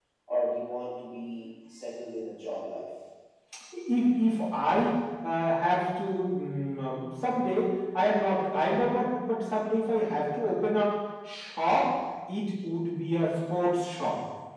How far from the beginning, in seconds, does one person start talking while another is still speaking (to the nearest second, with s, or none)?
none